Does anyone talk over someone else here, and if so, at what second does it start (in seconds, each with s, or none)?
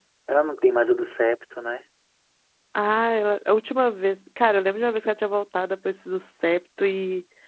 none